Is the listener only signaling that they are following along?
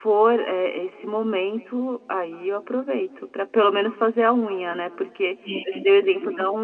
Yes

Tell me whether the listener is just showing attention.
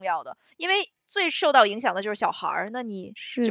No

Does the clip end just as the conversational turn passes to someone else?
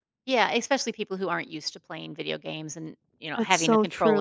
Yes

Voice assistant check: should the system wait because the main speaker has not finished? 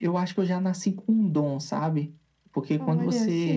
Yes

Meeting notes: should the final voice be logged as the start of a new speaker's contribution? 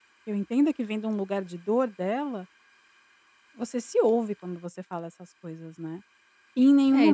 Yes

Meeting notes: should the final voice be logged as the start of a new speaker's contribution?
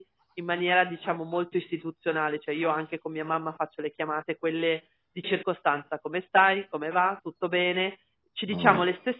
No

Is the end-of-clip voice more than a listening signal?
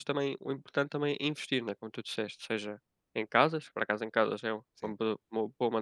No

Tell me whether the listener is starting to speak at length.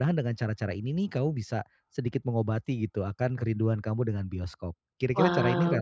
Yes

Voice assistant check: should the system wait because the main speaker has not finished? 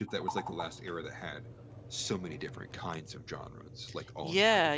No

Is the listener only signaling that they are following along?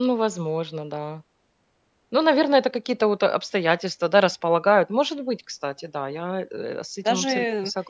No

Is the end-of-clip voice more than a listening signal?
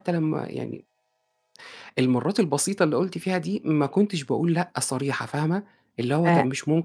Yes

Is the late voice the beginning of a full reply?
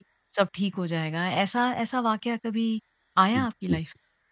Yes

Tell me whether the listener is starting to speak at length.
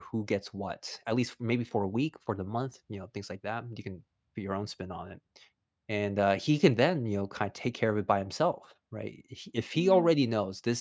No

